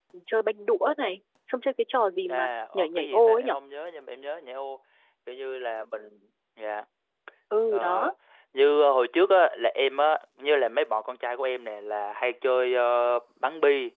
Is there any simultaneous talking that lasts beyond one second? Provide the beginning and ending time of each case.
2.3-3.5

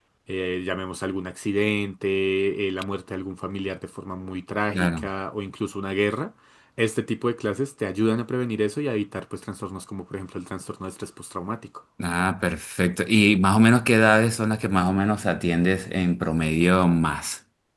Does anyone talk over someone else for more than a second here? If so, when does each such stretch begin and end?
none

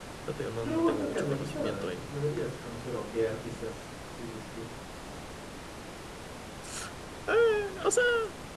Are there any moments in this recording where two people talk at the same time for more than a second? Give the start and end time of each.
0.6-2.1

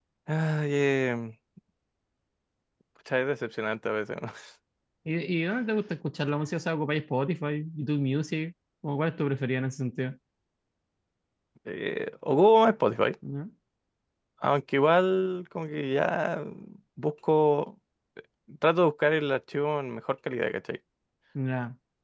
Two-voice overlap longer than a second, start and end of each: none

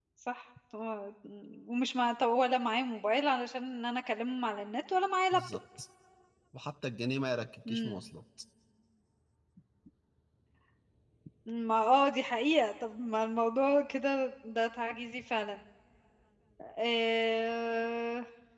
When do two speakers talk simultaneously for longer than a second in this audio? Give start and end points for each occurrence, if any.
none

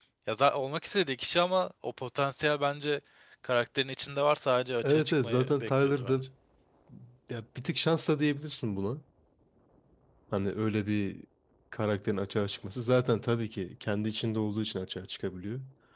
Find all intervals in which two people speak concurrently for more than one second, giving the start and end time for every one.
4.8-6.2

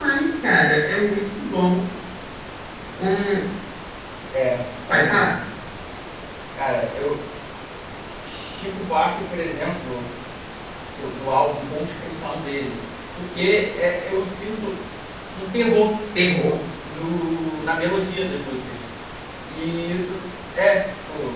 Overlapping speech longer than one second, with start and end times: none

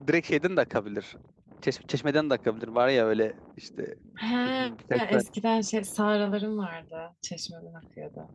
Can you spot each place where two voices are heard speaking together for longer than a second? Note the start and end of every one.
none

